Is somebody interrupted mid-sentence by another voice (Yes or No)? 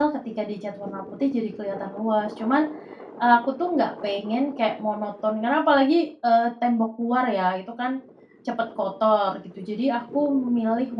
No